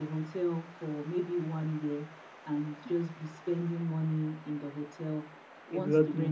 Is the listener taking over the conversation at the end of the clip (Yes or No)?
No